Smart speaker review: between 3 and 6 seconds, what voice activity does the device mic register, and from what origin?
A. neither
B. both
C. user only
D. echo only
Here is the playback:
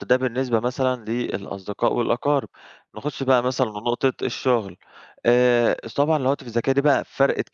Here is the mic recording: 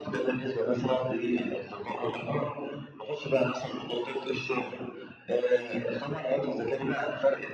D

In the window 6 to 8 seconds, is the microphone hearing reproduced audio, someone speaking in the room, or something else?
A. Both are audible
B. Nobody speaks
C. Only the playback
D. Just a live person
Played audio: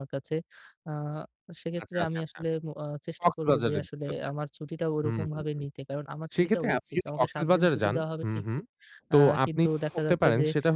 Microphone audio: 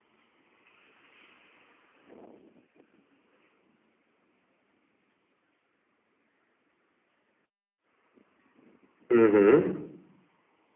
B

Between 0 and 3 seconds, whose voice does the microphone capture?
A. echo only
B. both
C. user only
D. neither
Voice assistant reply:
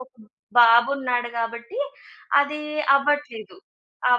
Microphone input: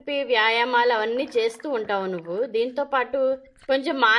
C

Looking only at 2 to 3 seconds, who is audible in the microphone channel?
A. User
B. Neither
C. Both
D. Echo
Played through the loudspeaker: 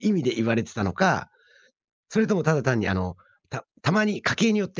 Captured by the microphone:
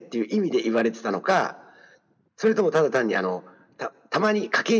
D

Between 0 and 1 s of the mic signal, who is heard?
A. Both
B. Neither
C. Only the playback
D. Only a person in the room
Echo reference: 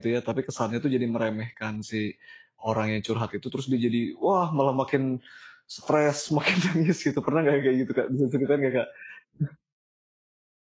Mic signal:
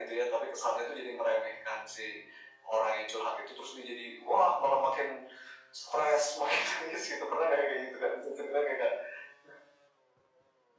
C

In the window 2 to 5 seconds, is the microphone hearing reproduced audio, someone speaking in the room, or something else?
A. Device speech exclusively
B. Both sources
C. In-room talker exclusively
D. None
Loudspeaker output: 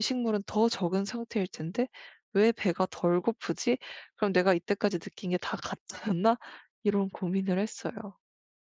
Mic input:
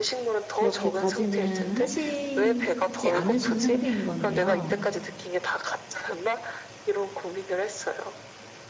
B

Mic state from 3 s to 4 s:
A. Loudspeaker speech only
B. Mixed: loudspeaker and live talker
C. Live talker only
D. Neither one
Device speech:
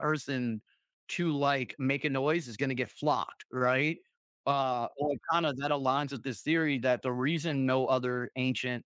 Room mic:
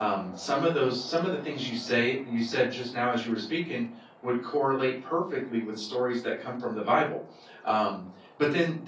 C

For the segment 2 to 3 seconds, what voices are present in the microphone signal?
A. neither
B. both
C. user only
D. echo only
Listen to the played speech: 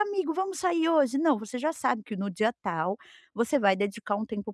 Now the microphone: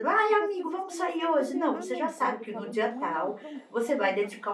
B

